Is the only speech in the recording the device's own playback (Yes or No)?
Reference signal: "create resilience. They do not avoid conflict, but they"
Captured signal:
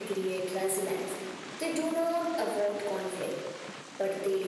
Yes